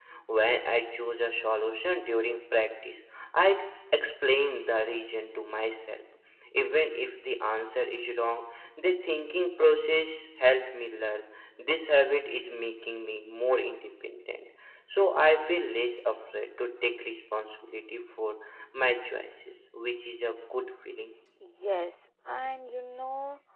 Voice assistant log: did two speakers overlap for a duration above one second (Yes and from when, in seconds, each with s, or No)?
No